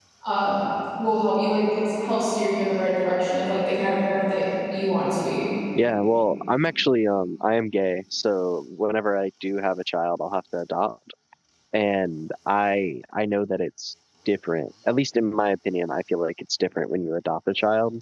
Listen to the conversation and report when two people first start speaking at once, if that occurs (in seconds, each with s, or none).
none